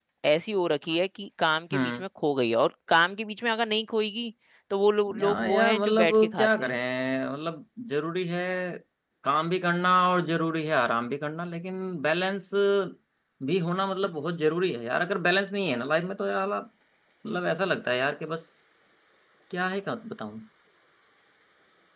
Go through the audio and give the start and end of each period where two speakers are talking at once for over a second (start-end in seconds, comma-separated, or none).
5.2-6.7